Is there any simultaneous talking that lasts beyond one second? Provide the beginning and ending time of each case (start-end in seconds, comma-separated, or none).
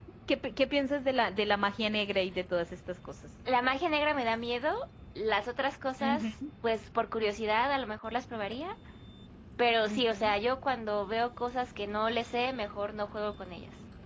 none